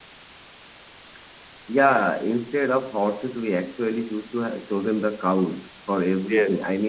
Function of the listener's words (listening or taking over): listening